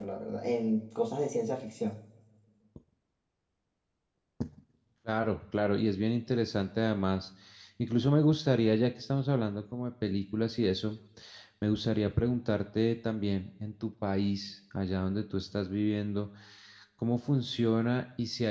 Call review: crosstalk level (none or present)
none